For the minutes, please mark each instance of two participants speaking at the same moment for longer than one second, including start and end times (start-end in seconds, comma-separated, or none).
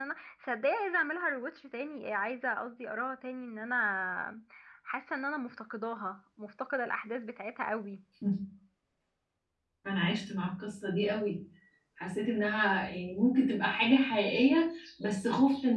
none